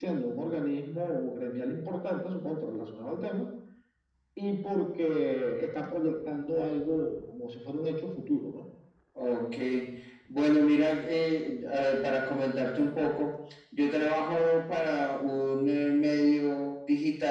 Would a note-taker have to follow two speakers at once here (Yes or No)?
No